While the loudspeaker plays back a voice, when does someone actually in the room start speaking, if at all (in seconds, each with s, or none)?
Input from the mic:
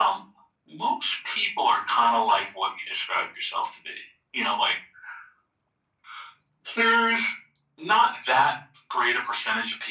none